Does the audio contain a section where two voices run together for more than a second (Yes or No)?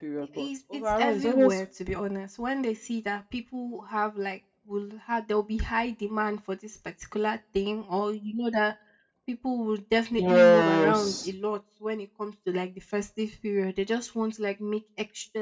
Yes